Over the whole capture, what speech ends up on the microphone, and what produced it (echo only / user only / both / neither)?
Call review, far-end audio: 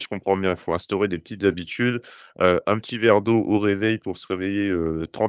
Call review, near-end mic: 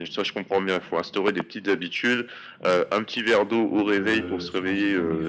both